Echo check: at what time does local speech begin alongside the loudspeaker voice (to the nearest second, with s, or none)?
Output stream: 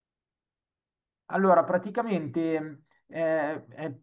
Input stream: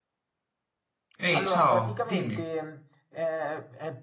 1 s